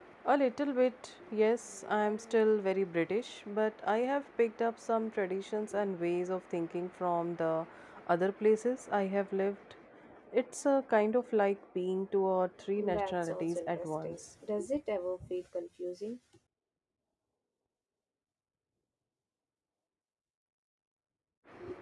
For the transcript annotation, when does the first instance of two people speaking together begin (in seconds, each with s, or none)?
12.8 s